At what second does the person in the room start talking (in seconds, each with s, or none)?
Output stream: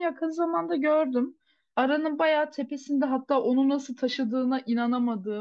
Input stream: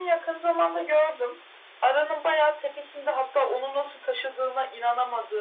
none